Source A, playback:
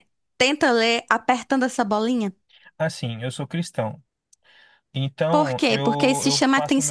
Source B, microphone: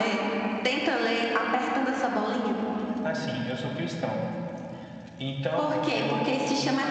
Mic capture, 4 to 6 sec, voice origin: echo only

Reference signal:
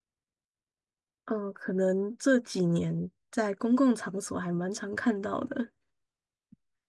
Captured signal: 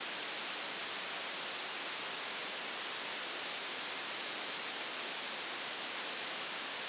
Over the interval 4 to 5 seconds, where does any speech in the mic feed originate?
neither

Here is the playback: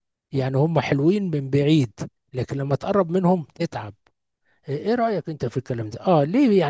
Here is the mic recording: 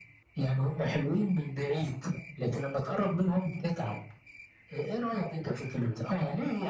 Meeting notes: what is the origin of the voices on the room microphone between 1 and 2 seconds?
echo only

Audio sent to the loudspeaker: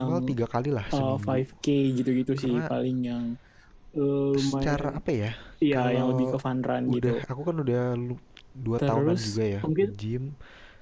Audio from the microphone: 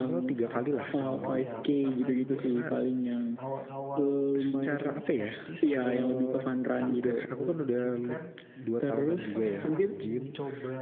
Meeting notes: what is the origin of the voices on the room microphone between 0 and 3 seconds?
both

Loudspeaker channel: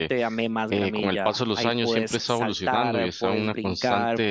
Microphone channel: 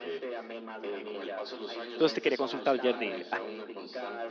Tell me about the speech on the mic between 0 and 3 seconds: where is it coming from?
both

